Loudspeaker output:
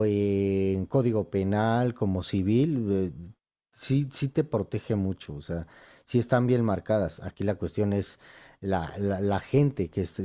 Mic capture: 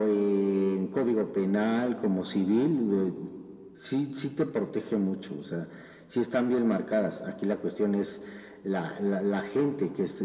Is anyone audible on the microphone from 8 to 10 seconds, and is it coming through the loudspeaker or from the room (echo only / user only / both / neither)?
echo only